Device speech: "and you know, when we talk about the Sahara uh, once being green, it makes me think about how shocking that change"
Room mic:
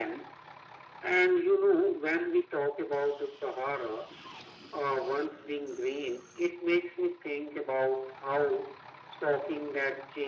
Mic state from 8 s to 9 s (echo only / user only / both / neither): echo only